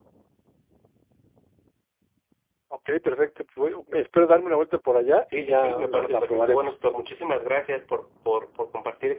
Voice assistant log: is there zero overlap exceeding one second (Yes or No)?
No